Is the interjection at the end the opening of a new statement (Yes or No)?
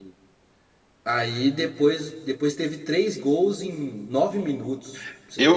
Yes